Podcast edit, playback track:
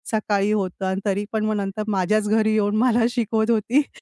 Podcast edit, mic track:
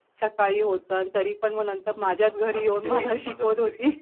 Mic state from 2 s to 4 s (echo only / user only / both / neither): both